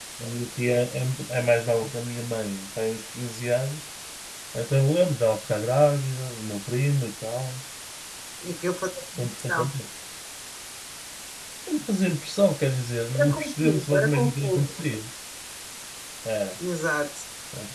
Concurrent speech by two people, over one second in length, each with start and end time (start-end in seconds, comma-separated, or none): 13.2-14.8